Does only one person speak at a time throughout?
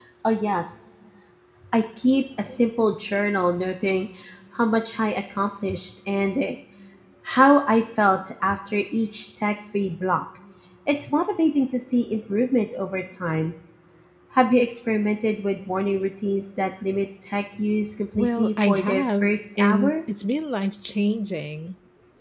No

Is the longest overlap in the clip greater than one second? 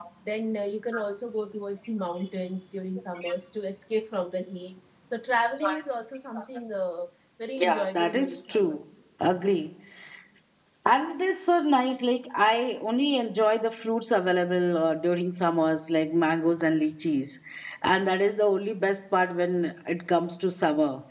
Yes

